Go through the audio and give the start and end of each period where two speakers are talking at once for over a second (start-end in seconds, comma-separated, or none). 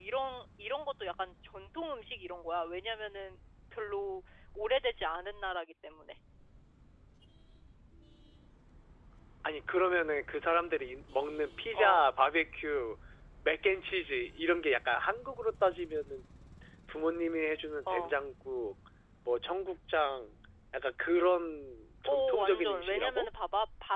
22.1-23.3